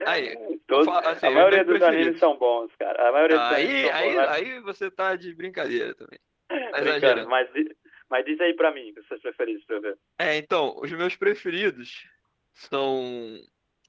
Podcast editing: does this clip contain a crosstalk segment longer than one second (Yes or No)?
Yes